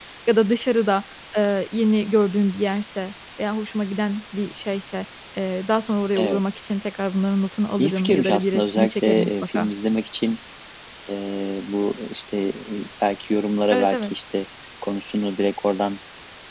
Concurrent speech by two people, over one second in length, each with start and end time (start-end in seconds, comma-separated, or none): 7.8-9.7